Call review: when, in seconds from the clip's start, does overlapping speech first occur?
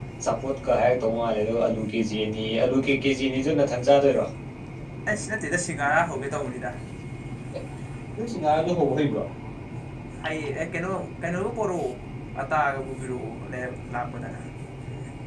none

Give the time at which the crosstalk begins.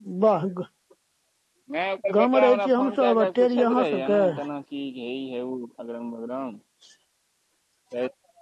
2.2 s

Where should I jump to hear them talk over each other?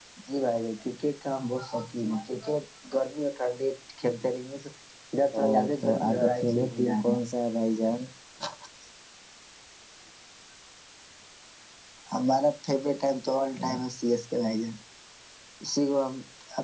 5.4 s

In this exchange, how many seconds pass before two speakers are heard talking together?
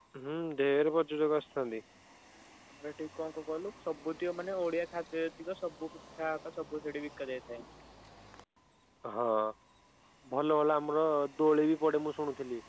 none

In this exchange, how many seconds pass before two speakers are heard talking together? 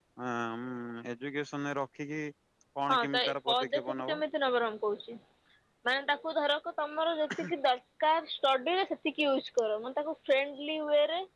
2.9 s

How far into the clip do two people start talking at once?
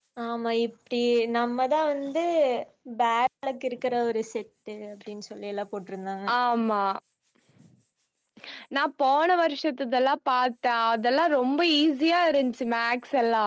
none

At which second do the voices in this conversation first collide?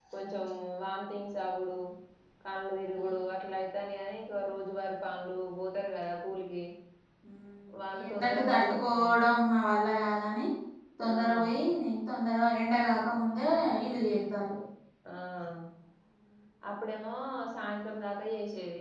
7.9 s

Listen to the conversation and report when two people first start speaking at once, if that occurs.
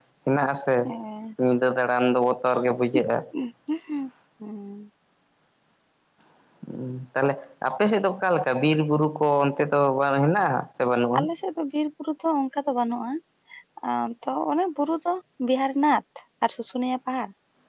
none

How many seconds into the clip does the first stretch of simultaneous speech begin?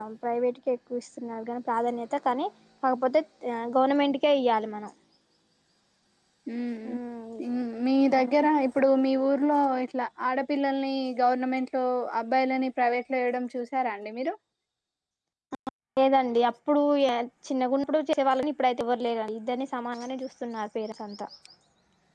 none

